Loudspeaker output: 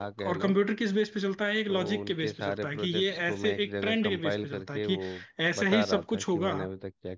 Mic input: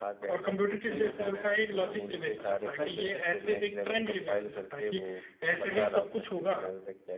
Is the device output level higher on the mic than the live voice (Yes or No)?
Yes